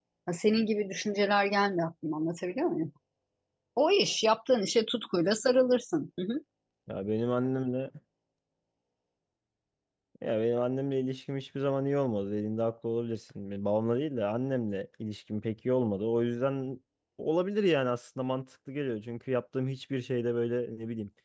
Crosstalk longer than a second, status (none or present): none